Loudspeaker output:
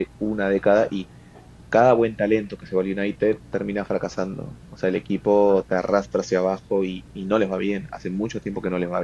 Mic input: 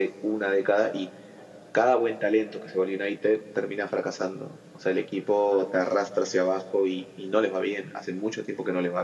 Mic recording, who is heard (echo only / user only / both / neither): echo only